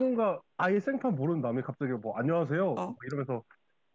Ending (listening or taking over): listening